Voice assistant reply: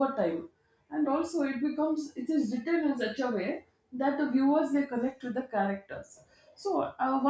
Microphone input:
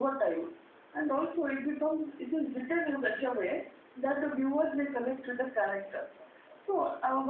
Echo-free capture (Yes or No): No